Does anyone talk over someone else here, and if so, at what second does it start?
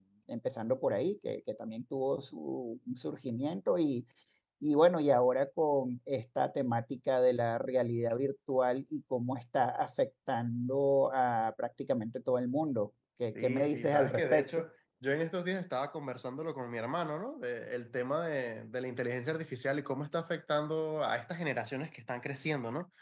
13.3 s

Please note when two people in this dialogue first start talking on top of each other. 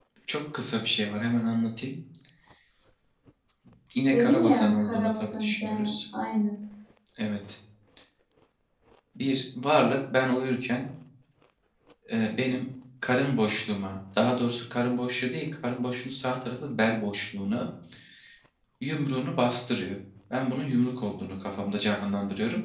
4.1 s

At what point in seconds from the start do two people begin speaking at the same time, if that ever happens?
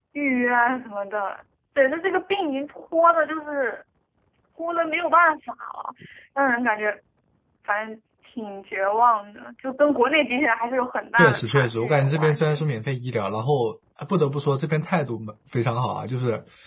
11.2 s

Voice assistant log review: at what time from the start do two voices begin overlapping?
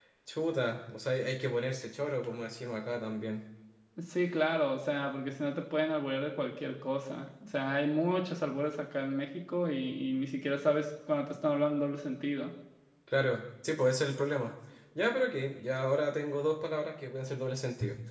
none

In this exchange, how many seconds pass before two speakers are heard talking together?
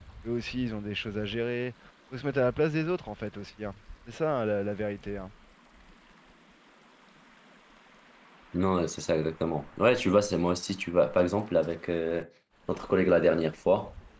none

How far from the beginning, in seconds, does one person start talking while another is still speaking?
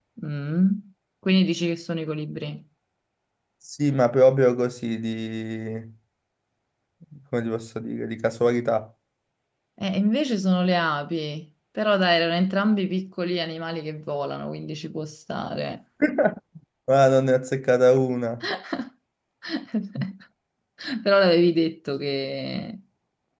none

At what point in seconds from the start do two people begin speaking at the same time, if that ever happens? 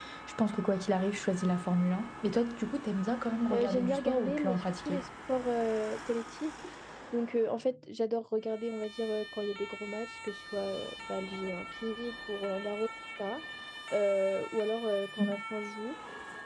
3.5 s

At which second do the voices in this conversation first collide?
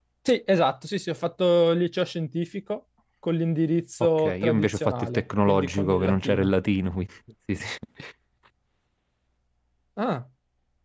4.2 s

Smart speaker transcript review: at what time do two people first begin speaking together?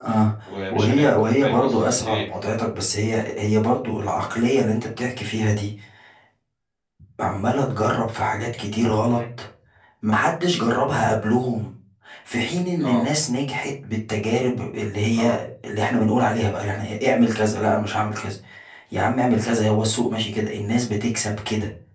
0.7 s

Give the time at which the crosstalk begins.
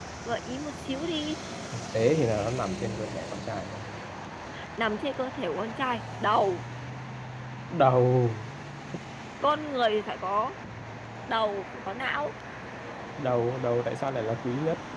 none

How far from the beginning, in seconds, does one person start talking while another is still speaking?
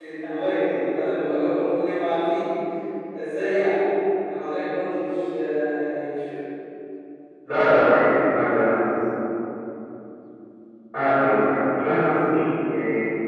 none

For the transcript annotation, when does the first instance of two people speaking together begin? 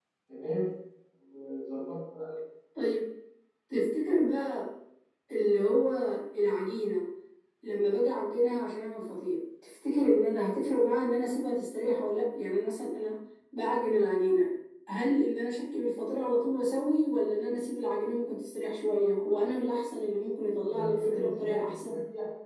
20.7 s

